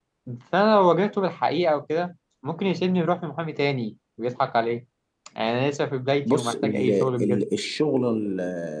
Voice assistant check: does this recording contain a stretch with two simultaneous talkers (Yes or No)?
Yes